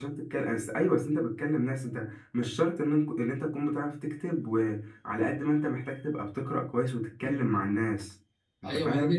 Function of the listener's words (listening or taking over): taking over